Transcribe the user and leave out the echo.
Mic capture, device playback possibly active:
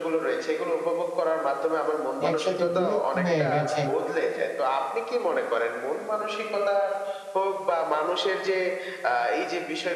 একসাথে মিলিত হয়ে গেছে।

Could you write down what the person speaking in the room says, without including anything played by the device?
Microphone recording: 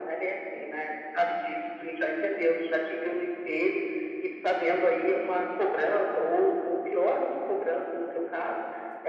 none

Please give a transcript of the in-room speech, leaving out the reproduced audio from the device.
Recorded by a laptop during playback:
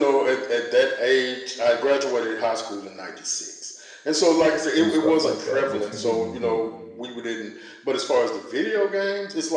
and stuff like that. But you didn't get

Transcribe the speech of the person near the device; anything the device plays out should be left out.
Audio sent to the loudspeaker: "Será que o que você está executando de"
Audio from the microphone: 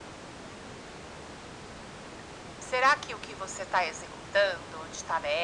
none

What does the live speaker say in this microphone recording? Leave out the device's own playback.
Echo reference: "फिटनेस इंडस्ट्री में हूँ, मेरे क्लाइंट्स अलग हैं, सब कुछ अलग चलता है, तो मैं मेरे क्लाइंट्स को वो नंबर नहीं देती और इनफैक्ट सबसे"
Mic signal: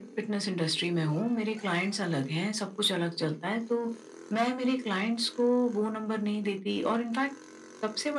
none

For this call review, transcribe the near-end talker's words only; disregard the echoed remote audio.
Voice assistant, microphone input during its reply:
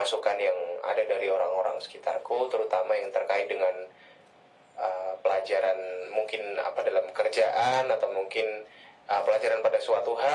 none

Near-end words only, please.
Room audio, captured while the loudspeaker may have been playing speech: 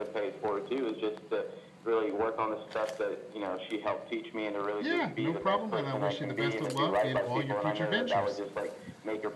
Yeah. No problem. And I wish you the best of luck in all your future ventures.

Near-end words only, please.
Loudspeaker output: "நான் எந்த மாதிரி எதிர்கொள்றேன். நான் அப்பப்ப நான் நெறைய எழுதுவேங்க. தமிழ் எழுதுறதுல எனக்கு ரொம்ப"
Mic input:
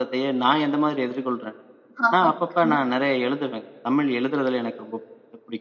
ஆமா. கண்டிப்பா.

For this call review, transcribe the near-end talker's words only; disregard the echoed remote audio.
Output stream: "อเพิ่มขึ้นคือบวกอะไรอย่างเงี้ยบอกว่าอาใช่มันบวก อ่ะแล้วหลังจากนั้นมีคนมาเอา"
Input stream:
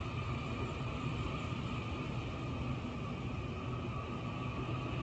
none

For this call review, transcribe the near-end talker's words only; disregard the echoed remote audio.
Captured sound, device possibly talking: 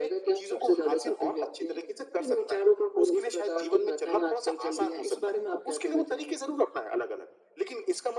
none

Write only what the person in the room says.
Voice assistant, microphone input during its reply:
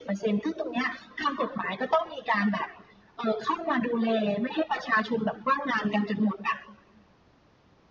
none

